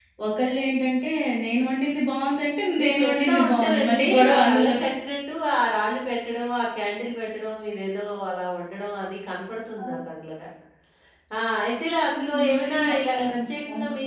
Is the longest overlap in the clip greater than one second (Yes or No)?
Yes